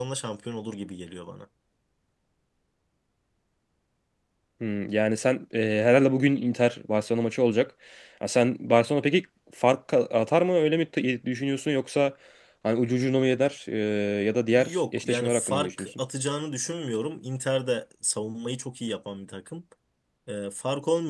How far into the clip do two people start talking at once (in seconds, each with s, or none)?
14.6 s